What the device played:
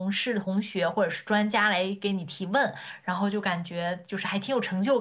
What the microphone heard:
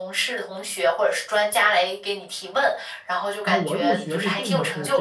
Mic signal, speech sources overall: both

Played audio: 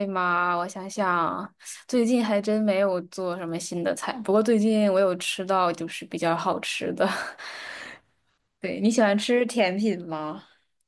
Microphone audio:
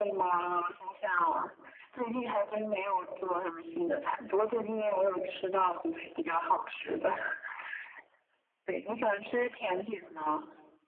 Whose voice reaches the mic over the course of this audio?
echo only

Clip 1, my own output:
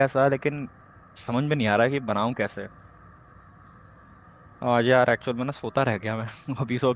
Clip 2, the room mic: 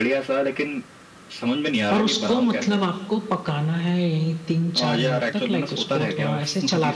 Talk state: both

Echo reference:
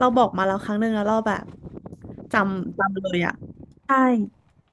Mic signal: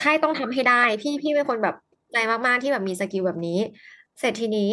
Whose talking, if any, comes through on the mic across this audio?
user only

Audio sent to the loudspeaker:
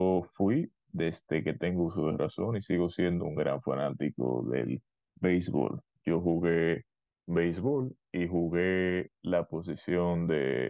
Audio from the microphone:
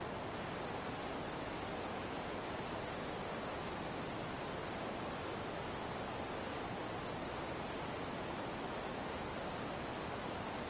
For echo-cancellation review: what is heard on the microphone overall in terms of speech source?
neither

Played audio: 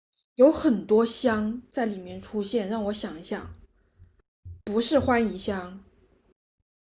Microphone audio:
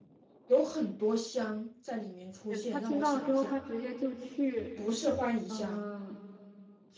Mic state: both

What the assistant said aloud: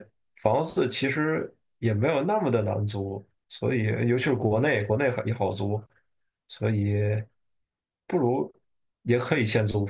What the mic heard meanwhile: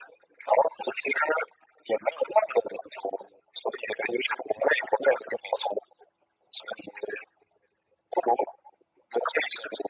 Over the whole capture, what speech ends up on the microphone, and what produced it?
echo only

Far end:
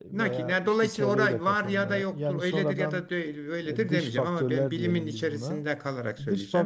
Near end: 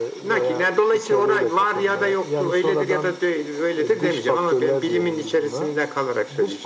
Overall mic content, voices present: echo only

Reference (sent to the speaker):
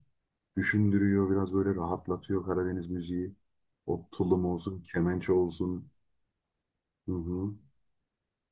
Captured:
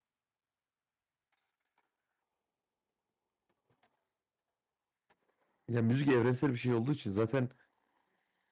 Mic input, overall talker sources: user only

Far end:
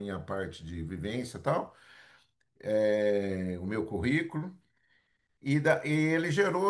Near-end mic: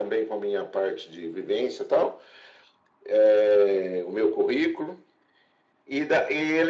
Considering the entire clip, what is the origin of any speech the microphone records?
echo only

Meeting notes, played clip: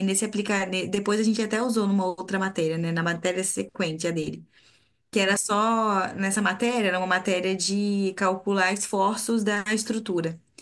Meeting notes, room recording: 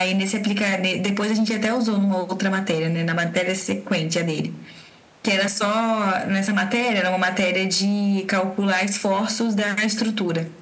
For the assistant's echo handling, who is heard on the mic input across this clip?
echo only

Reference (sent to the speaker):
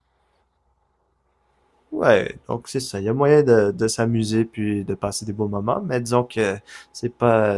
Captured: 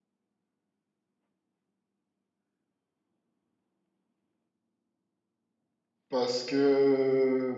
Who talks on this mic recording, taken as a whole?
user only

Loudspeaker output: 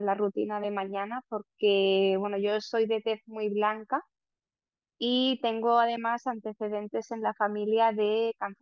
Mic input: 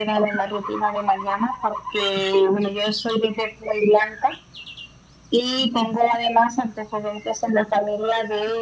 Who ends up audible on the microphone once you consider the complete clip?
echo only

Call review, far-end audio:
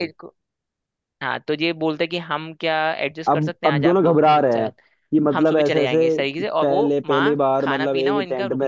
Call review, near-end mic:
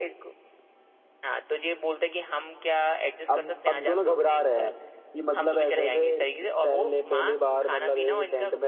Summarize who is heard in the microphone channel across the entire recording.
echo only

